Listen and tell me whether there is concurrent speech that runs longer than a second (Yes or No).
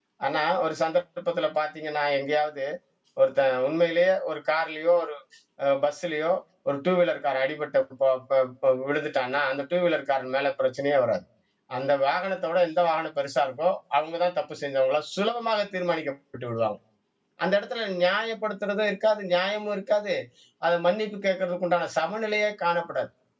No